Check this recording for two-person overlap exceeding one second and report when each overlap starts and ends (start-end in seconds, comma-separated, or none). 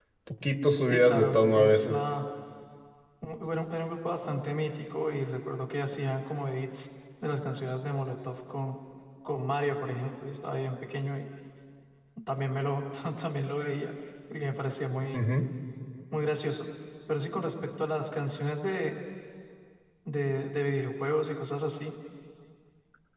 0.8-2.1